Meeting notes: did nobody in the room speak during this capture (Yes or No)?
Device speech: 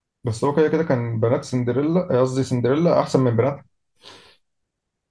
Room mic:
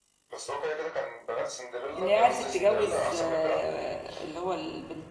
No